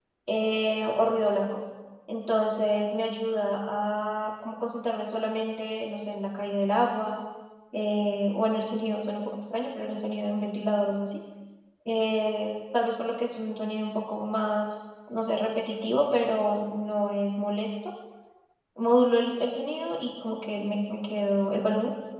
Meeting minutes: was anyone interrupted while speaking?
No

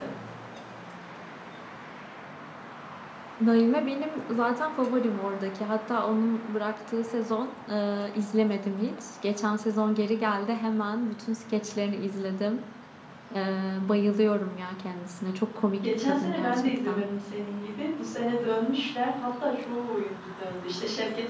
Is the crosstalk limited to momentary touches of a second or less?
No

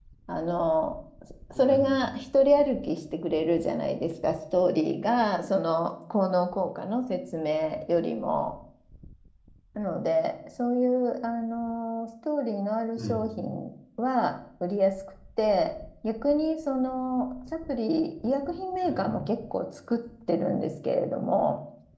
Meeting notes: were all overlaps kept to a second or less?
Yes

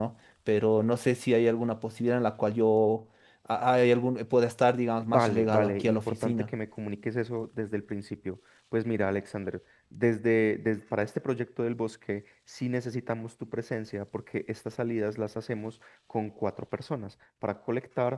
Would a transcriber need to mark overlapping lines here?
Yes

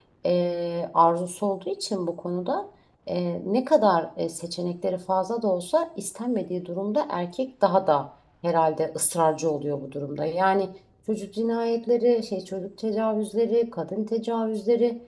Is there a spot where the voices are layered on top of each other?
No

